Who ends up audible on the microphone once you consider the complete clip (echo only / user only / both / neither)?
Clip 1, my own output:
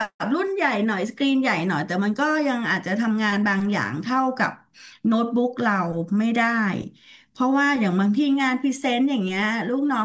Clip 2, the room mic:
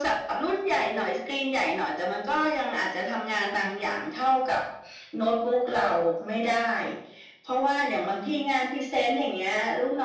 echo only